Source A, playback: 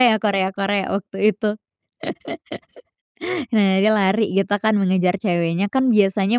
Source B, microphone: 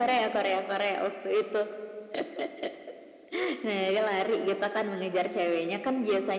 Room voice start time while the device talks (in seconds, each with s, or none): none